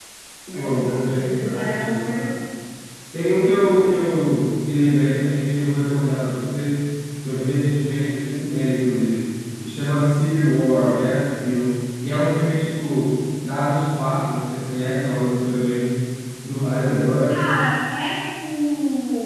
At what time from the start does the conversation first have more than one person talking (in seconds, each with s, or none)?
0.6 s